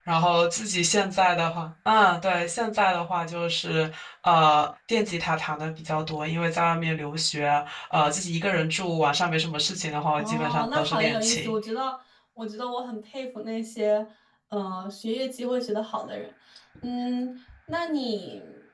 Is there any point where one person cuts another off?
Yes, from 10.2 s

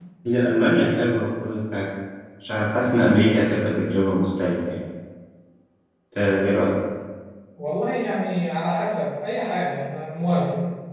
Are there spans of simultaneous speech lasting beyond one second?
No

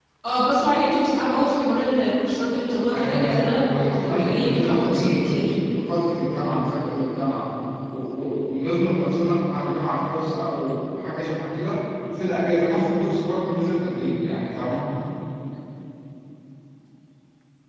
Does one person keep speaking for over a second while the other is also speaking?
Yes, from 2.9 s

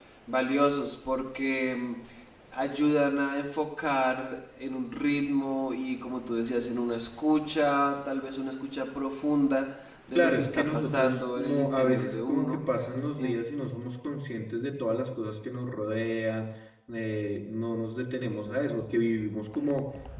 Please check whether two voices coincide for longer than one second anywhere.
Yes, from 10.2 s

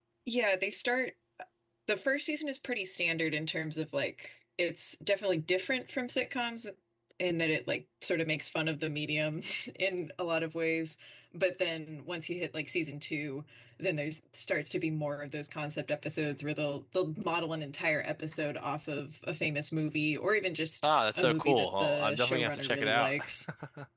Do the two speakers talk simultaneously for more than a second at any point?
Yes, from 20.8 s

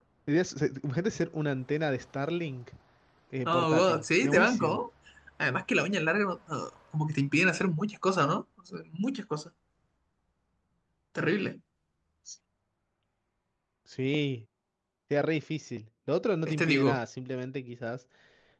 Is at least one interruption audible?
Yes, from 3.5 s

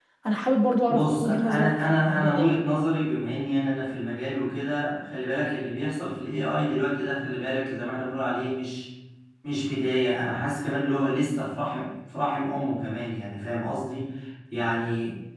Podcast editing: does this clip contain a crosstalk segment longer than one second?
Yes, from 0.9 s

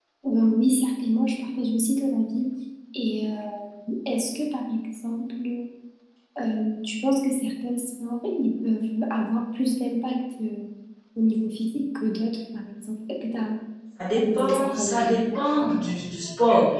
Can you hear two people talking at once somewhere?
Yes, from 14.0 s

